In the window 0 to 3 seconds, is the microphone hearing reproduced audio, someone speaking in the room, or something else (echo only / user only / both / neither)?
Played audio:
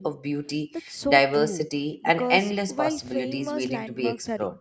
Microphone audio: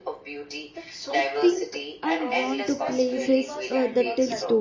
both